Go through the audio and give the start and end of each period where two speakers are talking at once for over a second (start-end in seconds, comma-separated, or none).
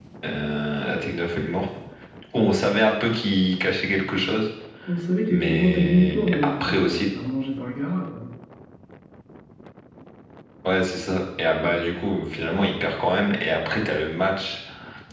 5.3-7.0